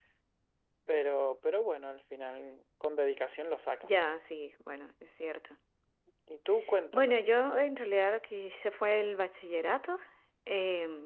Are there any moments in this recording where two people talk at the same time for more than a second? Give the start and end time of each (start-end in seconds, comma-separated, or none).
none